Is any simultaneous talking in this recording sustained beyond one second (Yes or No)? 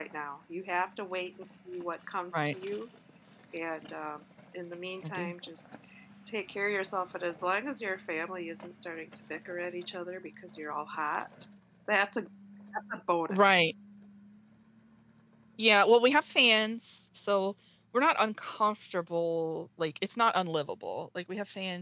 No